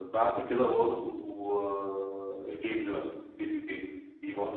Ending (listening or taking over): listening